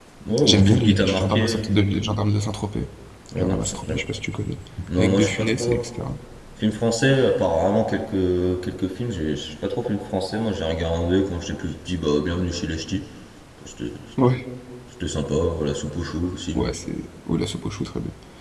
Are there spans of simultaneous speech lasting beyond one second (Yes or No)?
Yes